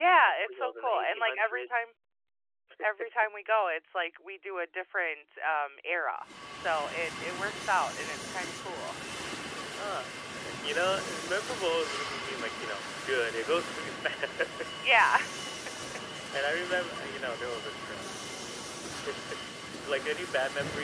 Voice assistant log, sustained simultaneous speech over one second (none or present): present